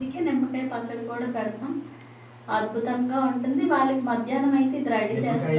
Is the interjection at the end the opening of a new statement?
Yes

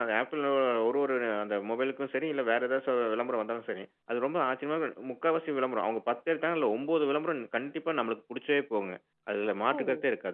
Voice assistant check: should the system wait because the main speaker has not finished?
Yes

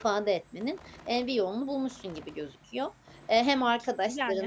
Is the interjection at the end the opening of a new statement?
No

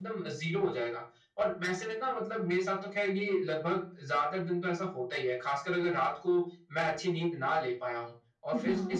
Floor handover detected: No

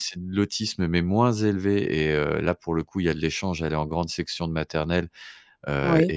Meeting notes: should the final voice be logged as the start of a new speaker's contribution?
No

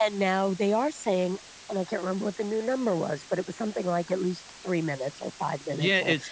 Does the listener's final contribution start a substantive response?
Yes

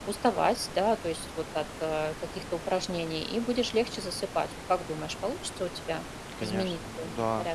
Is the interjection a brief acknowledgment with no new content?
No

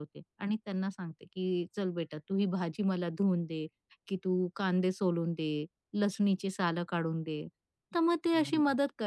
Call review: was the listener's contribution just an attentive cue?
Yes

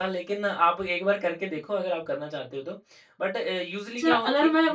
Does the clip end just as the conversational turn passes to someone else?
Yes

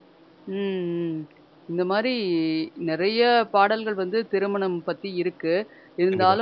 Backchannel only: Yes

